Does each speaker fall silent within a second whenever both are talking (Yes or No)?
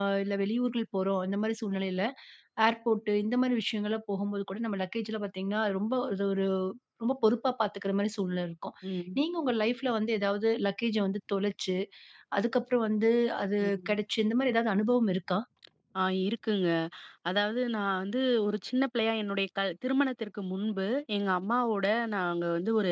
Yes